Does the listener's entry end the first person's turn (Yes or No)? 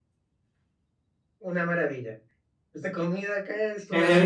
Yes